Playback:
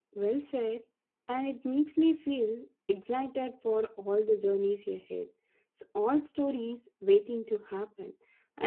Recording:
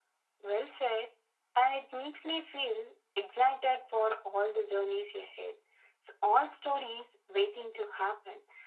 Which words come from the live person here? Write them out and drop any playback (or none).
none